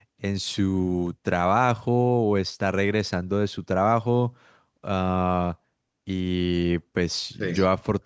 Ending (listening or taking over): listening